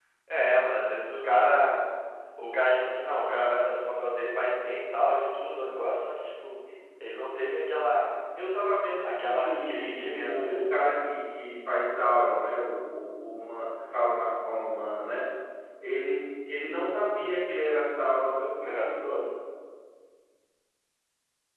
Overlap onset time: 9.0 s

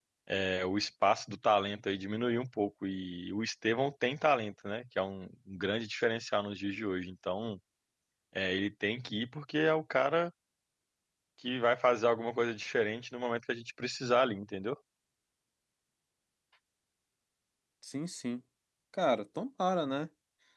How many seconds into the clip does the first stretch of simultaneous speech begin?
none

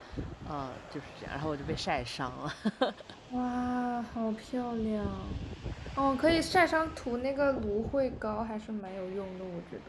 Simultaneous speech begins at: none

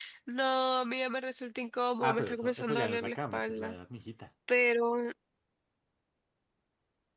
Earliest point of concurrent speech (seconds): 2.0 s

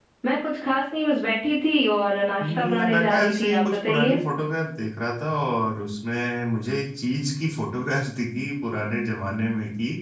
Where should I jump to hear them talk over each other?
2.4 s

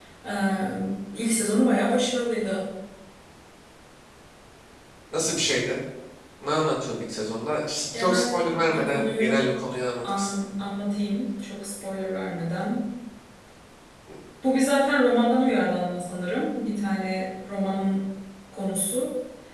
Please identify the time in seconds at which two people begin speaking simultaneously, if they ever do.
7.9 s

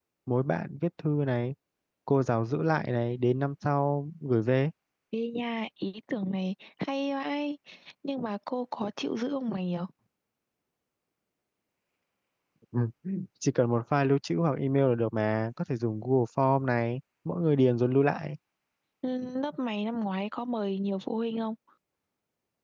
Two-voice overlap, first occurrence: none

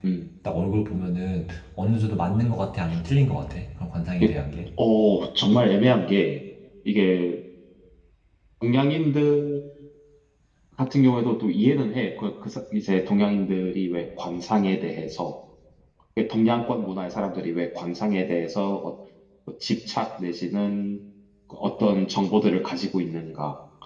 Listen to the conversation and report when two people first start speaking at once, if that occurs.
none

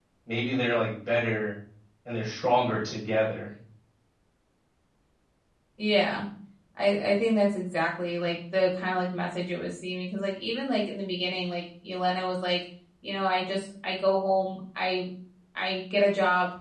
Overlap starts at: none

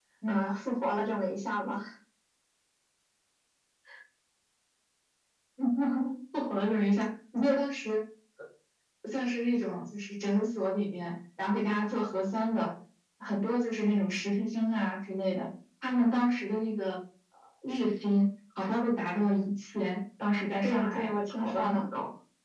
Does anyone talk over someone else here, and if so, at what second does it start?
20.6 s

